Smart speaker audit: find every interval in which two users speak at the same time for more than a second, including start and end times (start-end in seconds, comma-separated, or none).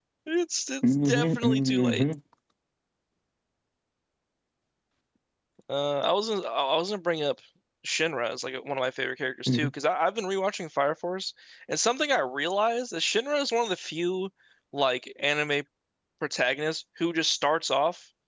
0.8-2.0